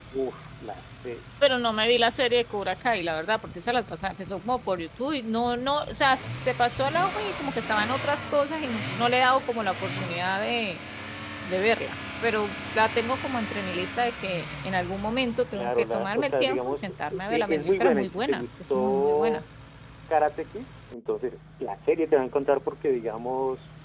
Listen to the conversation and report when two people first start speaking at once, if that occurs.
16 s

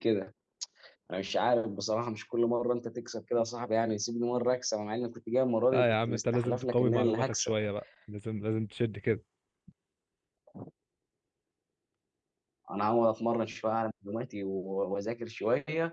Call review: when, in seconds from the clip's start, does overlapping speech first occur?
6 s

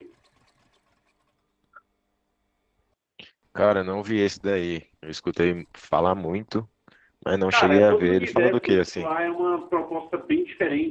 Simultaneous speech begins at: 8 s

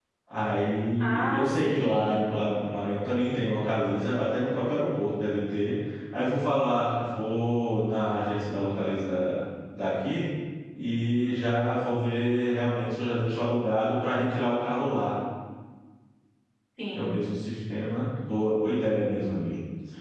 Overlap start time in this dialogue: 1 s

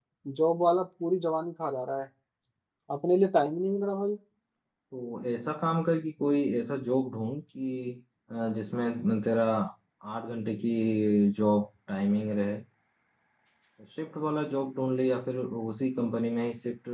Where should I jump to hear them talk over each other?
none

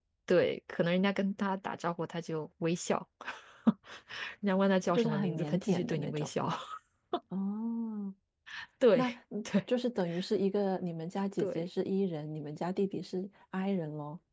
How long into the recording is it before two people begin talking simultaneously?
5 s

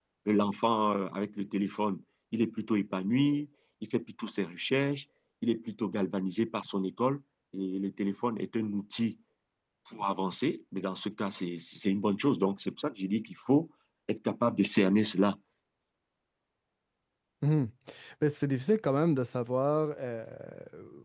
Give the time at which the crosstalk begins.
none

